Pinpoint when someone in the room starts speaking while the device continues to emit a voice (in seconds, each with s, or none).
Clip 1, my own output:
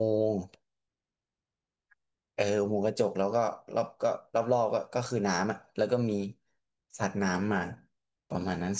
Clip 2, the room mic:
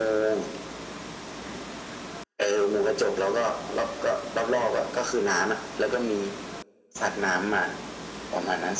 none